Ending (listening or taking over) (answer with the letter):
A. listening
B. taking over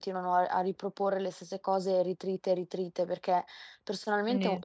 A